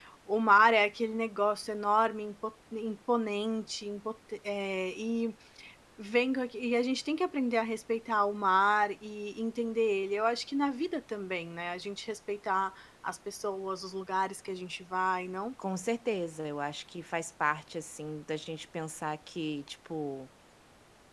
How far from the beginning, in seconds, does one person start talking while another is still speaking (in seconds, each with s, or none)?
none